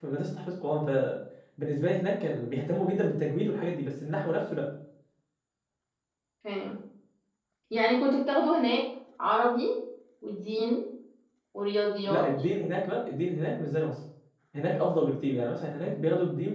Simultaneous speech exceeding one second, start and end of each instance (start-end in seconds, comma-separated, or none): none